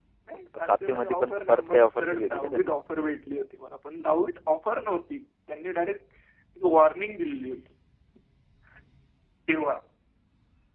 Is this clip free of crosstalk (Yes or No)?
No